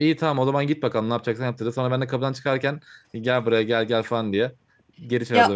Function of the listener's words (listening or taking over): taking over